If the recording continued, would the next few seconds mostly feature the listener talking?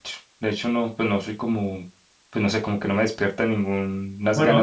Yes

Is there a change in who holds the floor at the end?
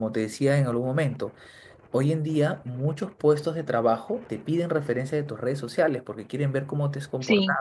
No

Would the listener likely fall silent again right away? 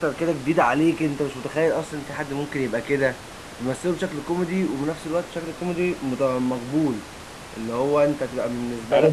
No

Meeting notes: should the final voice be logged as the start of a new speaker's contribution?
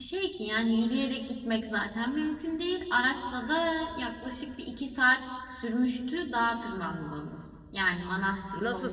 Yes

